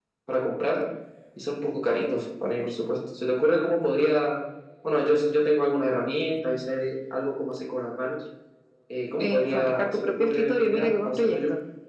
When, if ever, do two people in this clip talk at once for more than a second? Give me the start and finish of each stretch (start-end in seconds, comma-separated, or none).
9.2-11.4